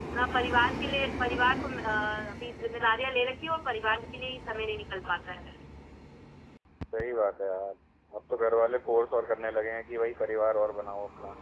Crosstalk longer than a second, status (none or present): none